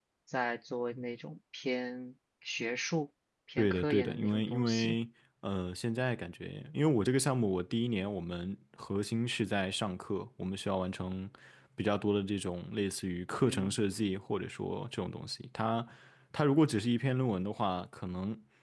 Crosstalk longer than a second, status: present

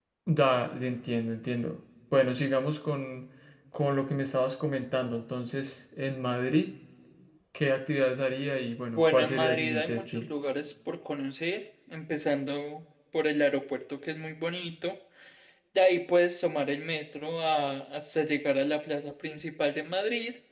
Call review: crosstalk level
present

